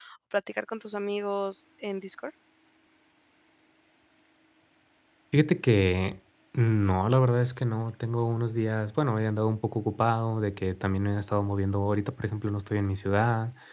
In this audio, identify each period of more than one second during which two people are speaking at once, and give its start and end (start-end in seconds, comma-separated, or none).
none